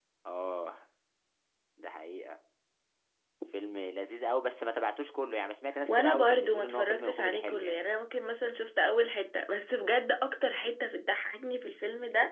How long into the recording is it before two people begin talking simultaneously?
5.8 s

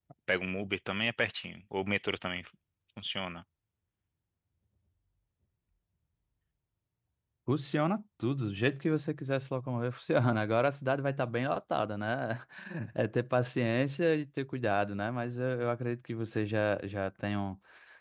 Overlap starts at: none

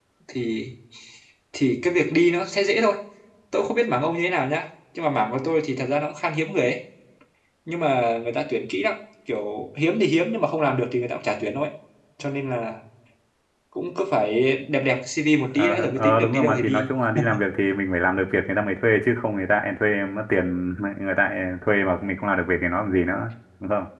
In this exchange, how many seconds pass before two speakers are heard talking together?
15.5 s

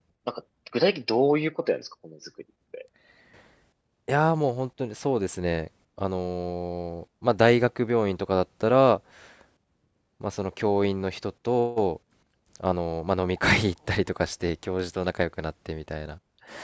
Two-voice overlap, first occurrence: none

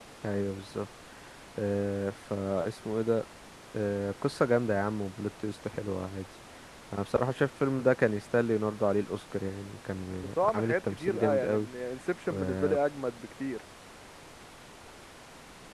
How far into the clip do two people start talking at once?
10.4 s

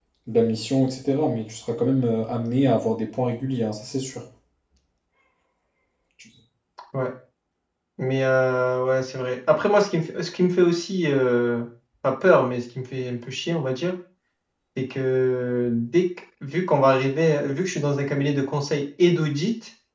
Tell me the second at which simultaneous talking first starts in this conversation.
none

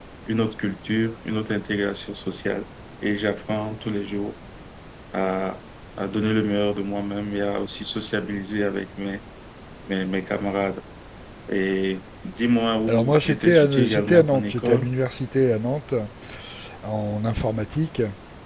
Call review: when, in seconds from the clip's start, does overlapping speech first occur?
12.9 s

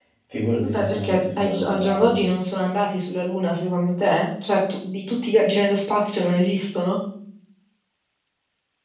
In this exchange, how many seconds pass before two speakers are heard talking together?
0.6 s

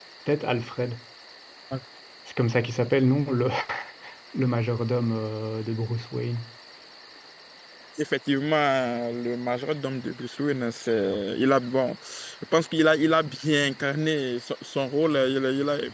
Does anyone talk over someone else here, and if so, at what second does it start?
none

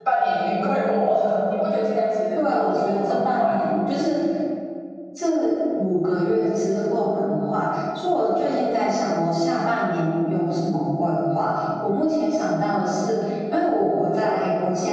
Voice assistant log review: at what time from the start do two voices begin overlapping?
2.4 s

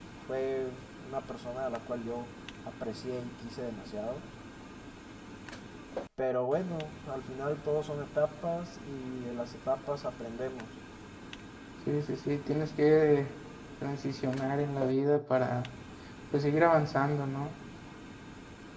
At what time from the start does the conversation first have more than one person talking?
none

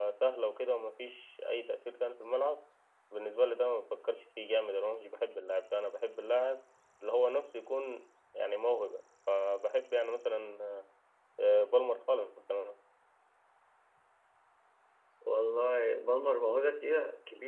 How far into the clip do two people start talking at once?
none

